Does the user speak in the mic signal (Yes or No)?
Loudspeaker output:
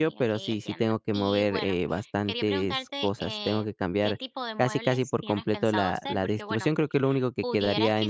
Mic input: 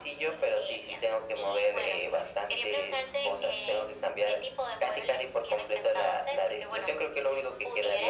No